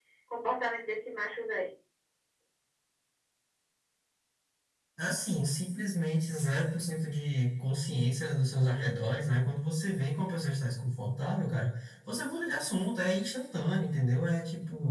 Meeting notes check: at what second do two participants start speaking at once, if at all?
none

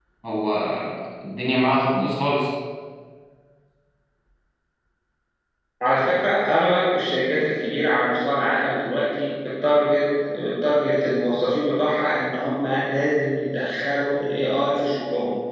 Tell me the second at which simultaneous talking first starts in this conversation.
none

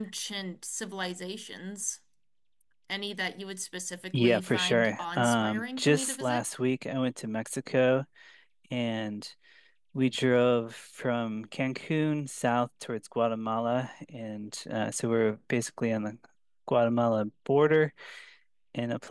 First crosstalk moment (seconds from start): 4 s

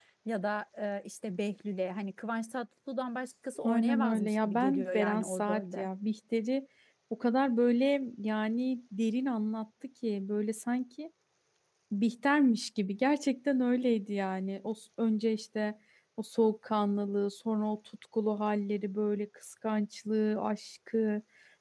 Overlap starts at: 4 s

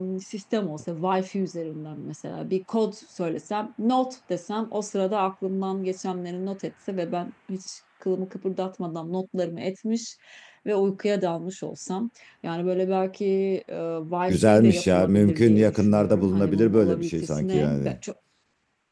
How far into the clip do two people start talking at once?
14 s

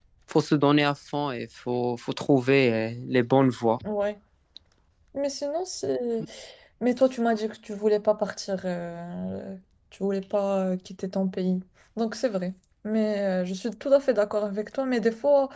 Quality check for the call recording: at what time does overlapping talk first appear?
none

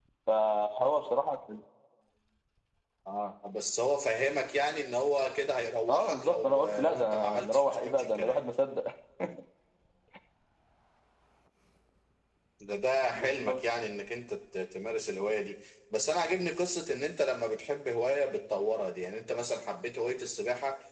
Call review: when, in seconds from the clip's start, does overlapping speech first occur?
6 s

